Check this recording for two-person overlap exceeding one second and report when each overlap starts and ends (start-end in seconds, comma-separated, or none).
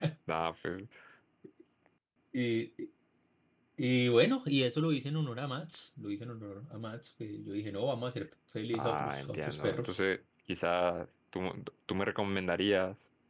8.7-9.9